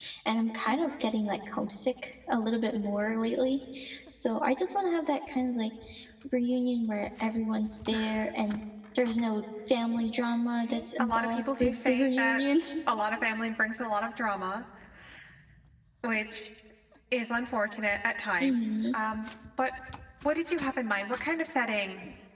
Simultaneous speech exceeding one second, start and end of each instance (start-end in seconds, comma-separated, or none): 10.7-12.4